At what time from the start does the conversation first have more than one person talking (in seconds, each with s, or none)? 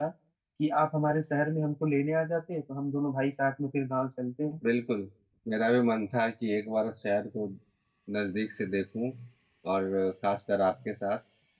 none